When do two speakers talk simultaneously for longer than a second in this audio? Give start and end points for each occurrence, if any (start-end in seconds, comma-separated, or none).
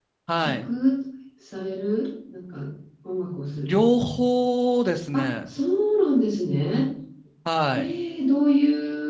none